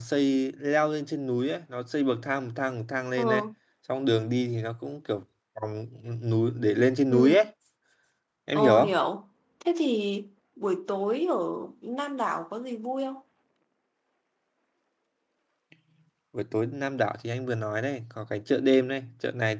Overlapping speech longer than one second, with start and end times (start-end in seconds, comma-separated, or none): none